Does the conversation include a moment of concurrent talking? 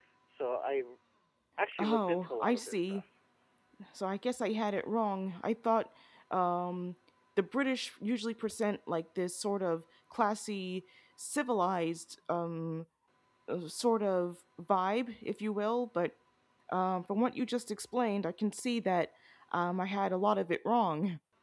Yes, from 1.8 s

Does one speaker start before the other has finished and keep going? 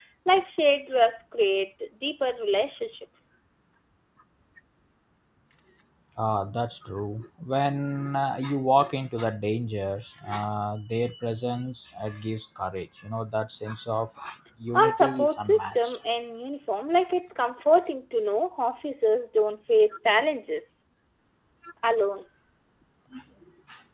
Yes, from 14.8 s

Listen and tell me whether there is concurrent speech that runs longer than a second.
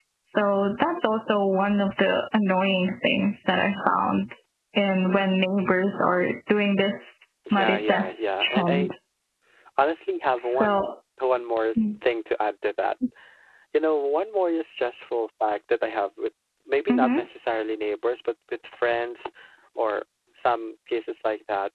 Yes, from 7.5 s

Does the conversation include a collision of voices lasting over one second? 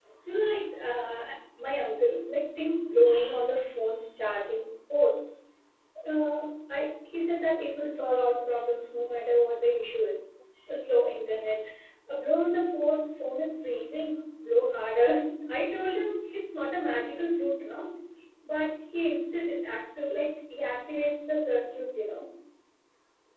No

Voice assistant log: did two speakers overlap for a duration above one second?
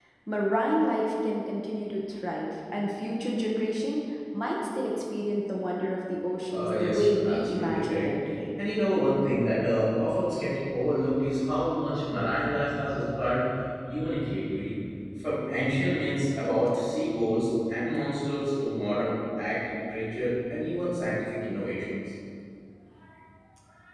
Yes, from 6.5 s

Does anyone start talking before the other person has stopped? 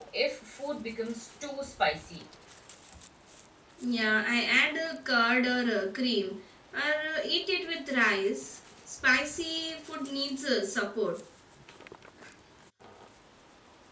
No

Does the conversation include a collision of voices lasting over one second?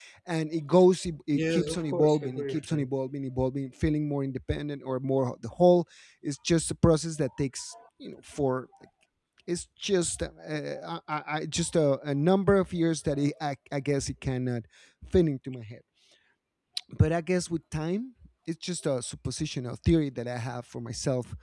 Yes, from 1.3 s

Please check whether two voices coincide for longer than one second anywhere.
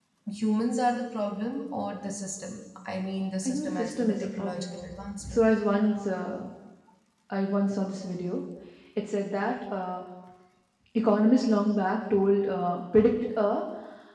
Yes, from 3.5 s

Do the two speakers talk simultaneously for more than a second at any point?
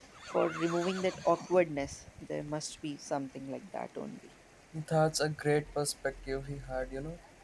No

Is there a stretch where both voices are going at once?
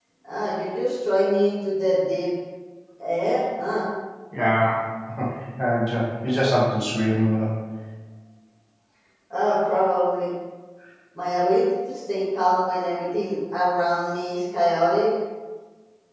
No

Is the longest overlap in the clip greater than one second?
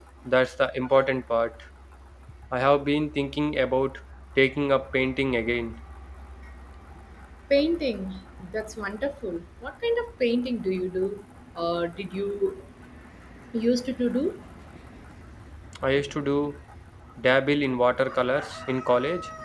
No

